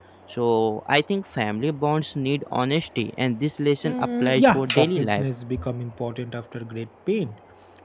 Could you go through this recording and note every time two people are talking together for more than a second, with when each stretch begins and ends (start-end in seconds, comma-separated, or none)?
3.8-5.2